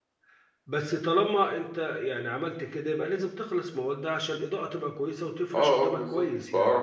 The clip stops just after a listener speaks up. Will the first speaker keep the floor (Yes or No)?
No